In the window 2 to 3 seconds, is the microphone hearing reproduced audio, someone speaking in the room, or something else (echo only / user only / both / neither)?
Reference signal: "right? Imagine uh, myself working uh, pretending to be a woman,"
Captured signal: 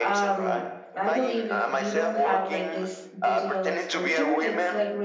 both